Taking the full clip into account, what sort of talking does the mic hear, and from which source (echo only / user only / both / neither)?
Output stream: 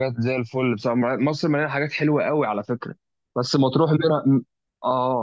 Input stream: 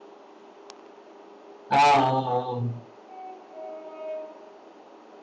user only